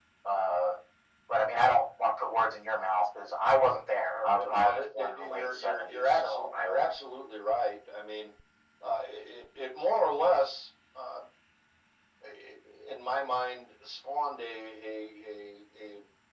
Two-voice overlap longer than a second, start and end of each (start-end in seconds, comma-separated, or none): 4.1-6.9